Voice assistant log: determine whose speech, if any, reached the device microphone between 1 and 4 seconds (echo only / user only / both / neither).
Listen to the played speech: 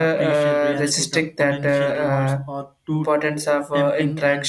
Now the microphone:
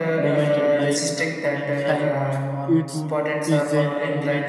both